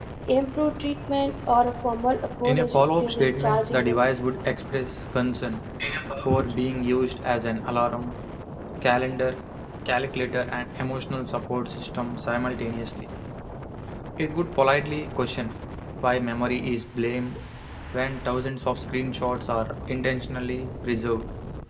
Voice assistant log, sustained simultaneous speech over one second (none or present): present